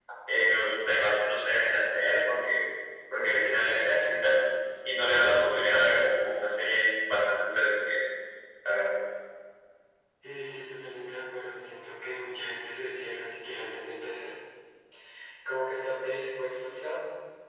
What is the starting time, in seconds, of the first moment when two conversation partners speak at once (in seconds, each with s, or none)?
none